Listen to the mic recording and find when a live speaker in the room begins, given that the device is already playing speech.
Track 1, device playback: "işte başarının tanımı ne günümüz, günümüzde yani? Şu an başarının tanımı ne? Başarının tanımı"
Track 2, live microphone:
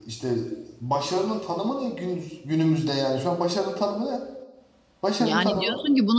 5.2 s

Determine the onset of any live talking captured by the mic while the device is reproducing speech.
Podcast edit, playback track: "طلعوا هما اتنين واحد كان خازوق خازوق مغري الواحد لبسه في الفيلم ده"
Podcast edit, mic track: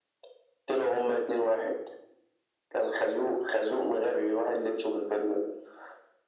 none

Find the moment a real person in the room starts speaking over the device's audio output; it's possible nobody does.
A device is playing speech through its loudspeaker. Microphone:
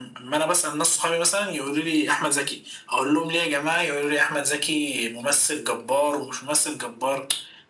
none

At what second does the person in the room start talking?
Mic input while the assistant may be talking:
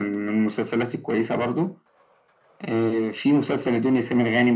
none

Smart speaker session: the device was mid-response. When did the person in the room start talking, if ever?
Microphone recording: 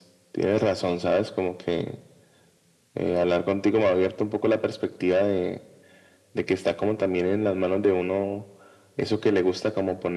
none

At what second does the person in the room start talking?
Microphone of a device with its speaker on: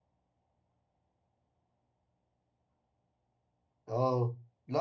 3.9 s

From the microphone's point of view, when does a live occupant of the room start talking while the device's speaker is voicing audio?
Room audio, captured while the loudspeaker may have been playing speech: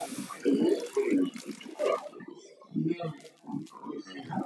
none

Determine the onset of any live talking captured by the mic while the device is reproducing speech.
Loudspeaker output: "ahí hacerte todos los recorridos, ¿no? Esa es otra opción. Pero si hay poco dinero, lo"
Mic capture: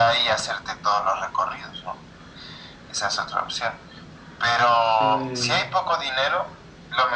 5.0 s

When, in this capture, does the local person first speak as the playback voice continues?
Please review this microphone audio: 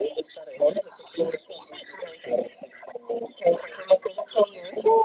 none

